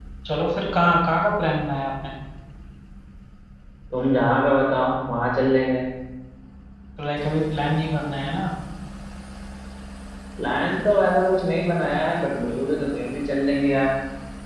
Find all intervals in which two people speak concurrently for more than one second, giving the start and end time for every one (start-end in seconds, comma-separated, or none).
none